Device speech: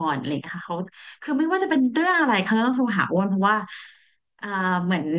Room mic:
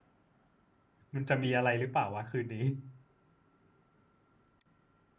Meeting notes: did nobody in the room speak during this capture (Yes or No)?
No